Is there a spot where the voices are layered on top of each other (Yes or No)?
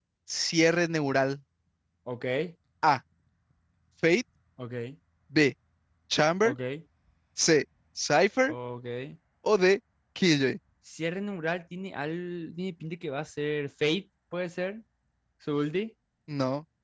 No